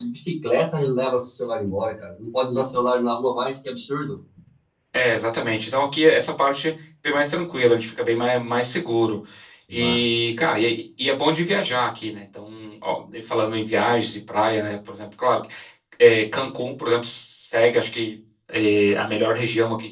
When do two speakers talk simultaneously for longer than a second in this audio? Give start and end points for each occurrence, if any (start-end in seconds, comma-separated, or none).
none